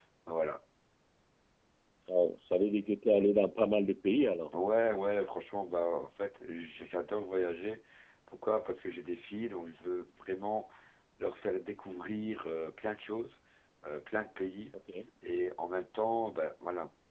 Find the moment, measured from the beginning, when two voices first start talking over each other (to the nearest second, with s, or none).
none